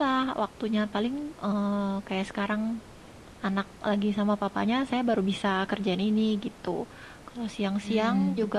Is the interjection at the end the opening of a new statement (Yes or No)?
No